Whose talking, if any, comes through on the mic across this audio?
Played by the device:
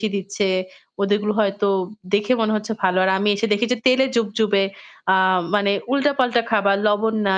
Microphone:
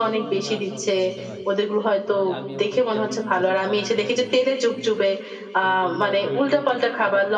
both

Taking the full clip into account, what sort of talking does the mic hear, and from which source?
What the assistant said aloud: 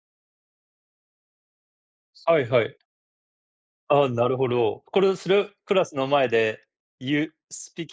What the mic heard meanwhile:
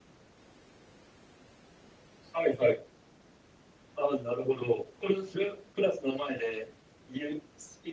echo only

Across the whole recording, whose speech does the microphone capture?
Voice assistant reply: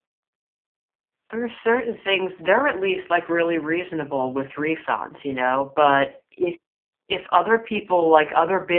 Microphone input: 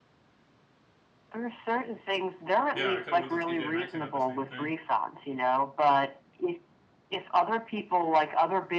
both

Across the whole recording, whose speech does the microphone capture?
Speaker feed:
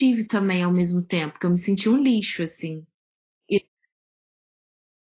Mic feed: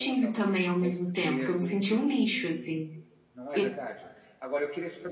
both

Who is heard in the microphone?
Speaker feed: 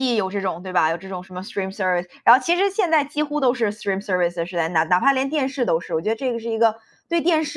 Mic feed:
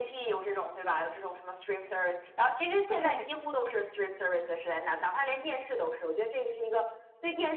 both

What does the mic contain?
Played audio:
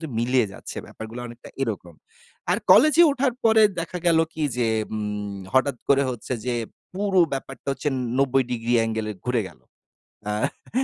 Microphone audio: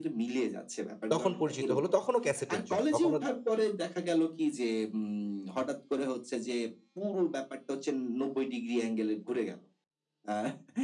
both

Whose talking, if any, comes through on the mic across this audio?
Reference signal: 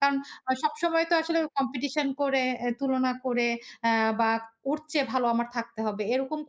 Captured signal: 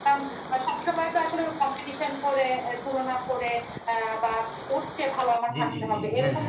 both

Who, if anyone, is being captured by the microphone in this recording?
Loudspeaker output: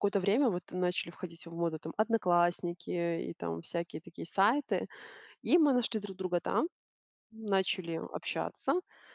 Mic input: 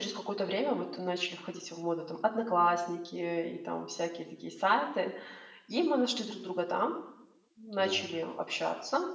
both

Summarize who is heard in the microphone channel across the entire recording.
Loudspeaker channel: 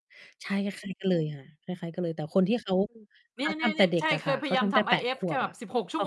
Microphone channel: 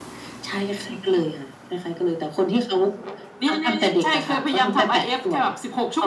echo only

